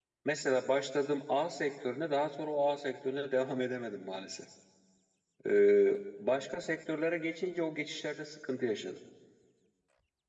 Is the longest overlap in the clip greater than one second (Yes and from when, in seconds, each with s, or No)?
No